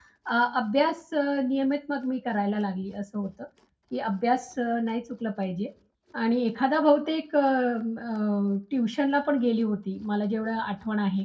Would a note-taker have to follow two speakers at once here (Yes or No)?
No